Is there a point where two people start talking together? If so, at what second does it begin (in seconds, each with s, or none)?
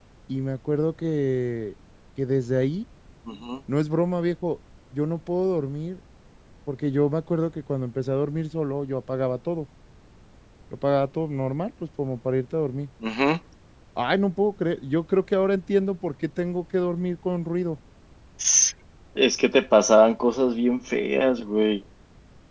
none